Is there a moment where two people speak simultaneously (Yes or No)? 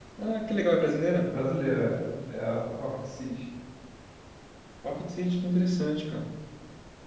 No